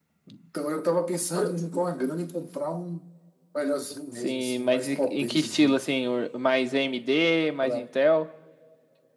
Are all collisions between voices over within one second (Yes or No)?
No